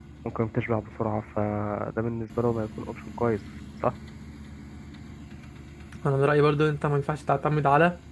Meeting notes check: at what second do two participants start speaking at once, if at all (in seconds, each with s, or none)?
none